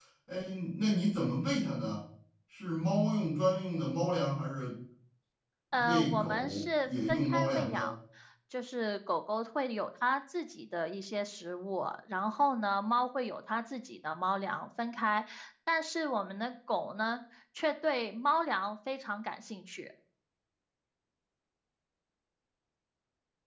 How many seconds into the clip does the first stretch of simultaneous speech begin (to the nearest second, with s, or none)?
6 s